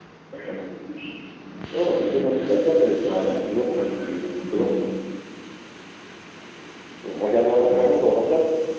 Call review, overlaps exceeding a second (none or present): none